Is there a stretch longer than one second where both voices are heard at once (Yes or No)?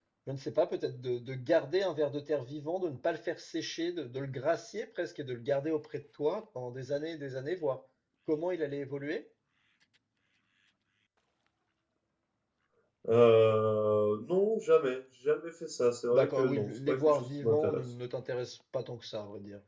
Yes